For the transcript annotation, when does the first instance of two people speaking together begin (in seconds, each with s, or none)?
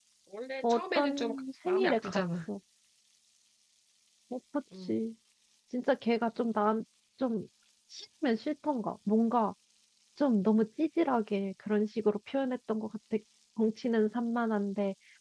0.6 s